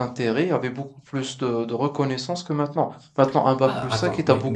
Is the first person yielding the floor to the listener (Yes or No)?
Yes